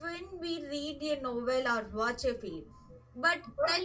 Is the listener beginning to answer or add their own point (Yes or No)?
No